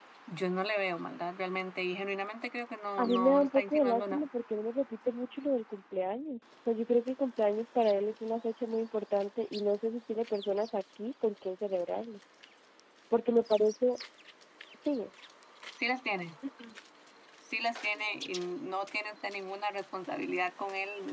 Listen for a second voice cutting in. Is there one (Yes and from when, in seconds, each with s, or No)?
Yes, from 3.0 s